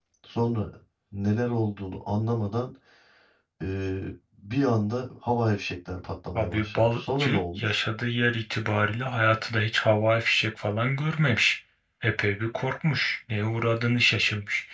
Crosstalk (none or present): present